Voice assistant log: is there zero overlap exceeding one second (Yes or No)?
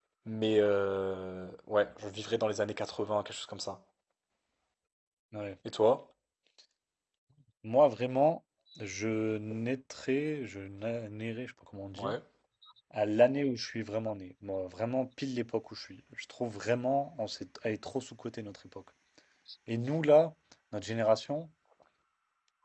Yes